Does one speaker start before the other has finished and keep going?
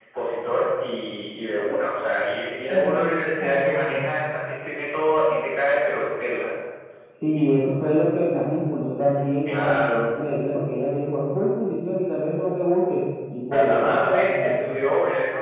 Yes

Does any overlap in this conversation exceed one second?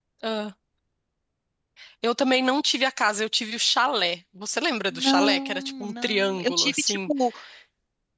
Yes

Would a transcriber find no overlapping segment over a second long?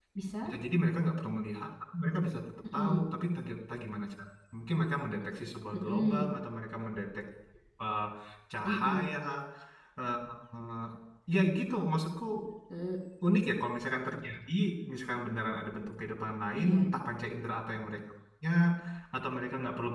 Yes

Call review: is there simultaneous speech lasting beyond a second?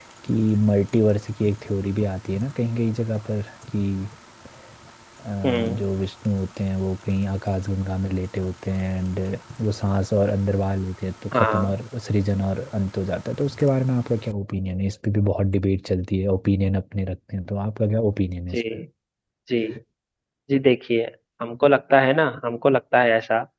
No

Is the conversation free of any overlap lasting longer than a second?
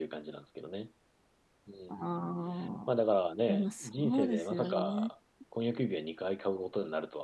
No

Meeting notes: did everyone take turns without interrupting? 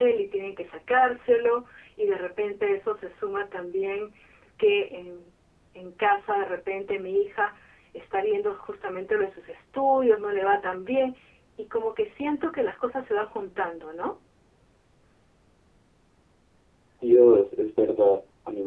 Yes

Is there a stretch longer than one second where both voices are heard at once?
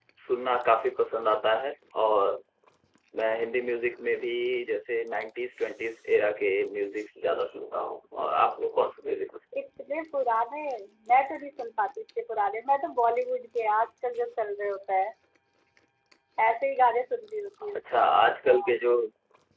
No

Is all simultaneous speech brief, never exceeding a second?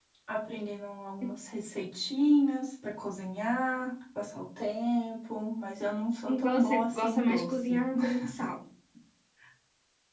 No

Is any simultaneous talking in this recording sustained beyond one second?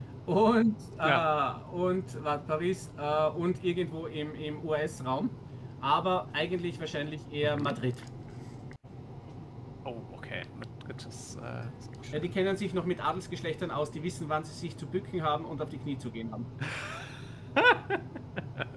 No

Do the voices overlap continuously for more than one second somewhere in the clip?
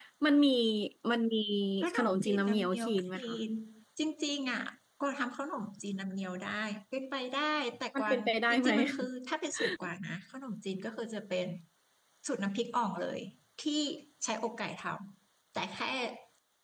Yes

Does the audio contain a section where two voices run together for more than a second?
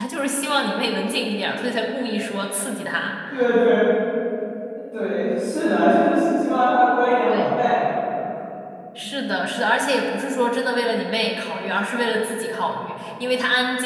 No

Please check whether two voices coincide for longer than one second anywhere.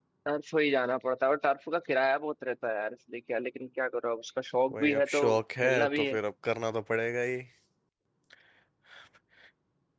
Yes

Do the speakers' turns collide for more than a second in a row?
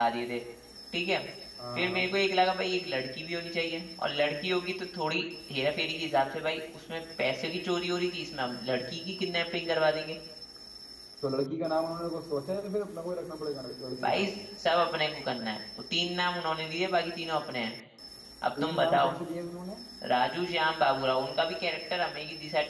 No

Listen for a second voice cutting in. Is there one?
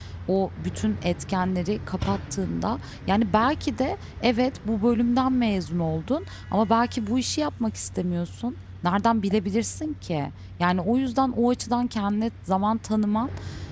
No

